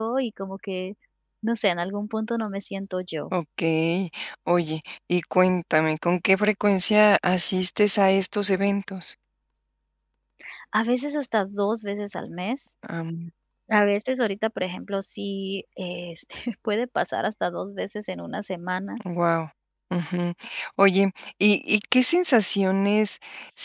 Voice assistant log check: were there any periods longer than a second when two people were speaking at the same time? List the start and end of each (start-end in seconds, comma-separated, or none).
none